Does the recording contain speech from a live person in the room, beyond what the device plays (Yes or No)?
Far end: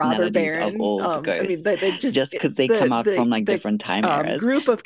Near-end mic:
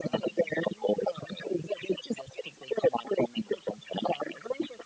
No